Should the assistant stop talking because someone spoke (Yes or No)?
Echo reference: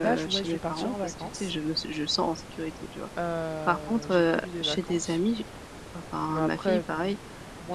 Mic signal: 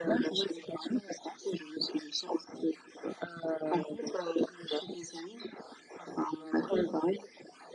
No